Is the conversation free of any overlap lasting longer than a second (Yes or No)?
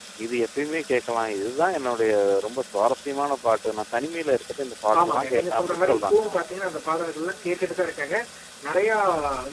No